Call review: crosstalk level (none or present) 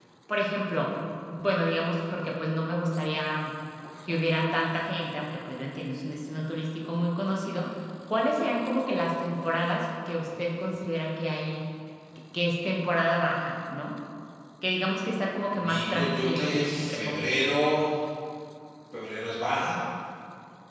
present